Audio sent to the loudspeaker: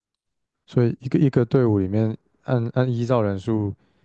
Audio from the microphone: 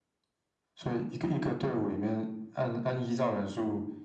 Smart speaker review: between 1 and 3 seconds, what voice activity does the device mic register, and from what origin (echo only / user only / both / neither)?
echo only